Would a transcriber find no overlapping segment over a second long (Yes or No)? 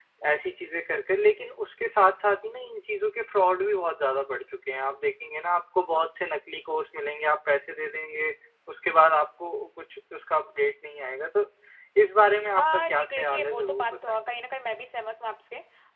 No